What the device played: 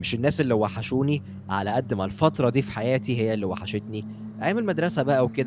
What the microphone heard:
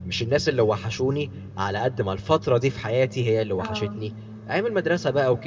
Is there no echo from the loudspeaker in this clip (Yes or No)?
No